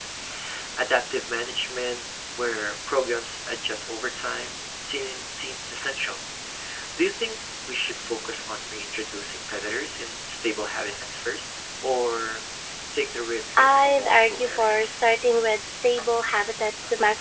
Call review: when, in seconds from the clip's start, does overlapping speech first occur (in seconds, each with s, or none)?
13.6 s